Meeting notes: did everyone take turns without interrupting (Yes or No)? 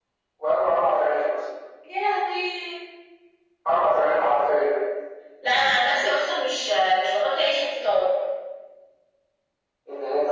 Yes